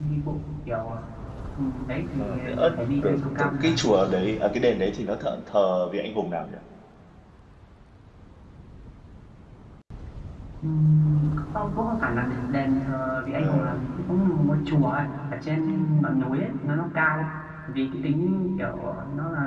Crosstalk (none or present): present